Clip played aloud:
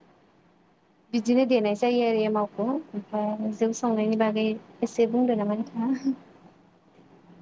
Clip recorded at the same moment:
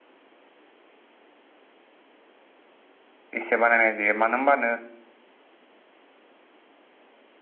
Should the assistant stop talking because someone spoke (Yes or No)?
Yes